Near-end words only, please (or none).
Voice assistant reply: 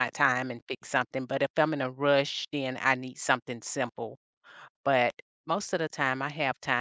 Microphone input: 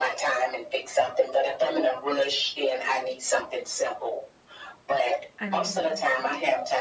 I mean,